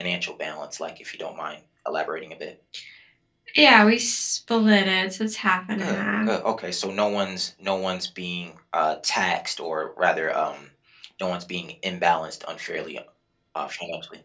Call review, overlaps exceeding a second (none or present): none